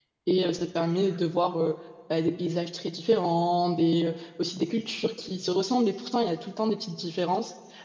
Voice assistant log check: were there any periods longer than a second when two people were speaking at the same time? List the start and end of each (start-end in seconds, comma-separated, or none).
none